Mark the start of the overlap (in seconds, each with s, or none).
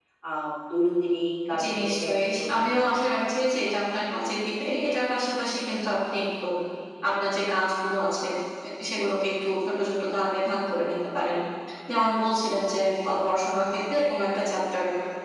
1.5 s